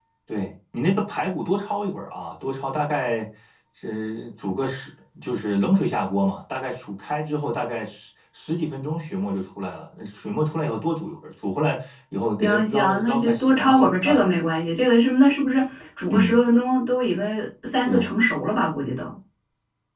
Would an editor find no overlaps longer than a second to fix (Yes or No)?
No